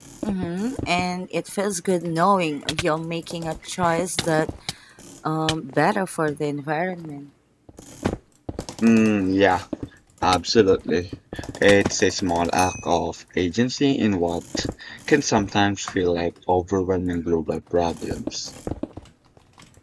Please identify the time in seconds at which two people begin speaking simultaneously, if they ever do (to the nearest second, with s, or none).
none